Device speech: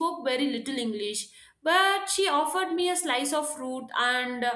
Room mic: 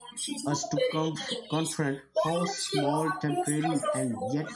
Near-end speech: present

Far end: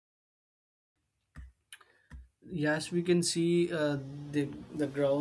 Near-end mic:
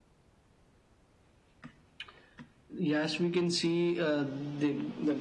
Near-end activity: none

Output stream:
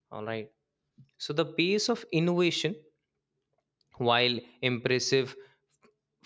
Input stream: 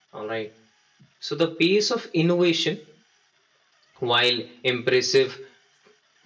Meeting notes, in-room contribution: none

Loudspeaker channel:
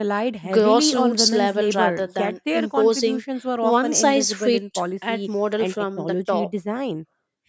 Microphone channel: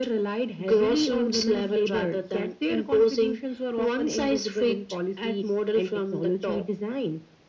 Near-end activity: none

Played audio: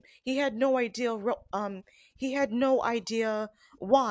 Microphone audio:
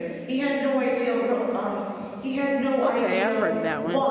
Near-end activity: present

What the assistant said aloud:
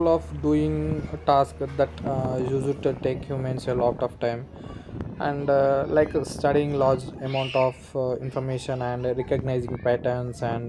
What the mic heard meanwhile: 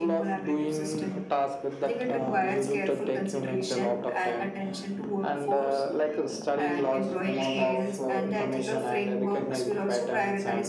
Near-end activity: present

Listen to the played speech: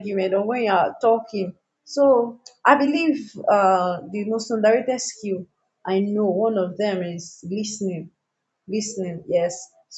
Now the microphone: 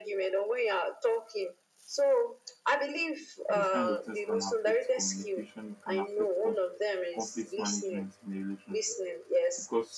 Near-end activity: present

